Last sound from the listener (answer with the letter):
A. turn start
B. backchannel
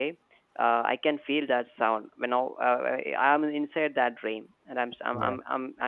B